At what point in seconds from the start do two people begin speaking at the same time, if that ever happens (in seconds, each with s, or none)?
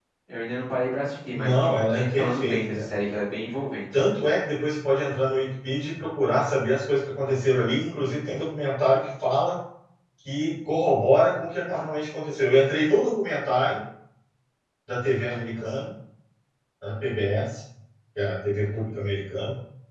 1.3 s